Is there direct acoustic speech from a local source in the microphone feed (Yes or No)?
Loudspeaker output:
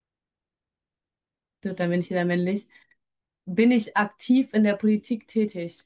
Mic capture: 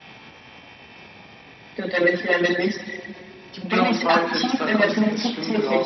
Yes